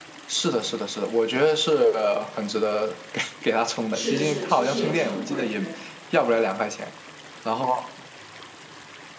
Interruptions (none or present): present